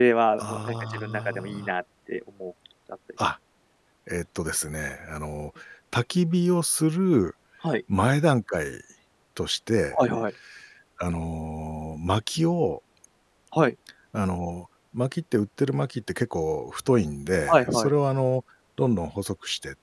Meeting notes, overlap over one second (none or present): present